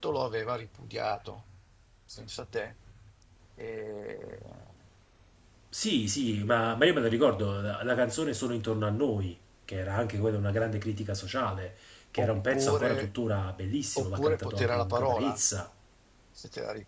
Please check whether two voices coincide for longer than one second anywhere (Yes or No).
Yes